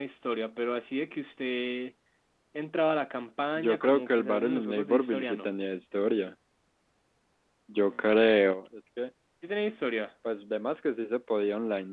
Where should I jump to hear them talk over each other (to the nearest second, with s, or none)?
4 s